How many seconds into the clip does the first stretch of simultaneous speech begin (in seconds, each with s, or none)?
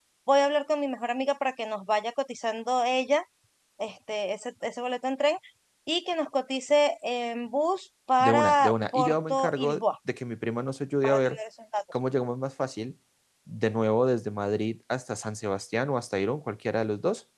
8.2 s